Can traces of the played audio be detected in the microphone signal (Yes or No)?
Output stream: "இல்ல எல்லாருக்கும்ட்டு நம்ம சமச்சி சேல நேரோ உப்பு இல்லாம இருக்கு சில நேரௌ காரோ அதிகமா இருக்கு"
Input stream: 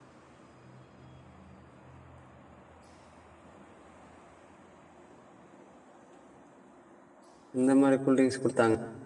No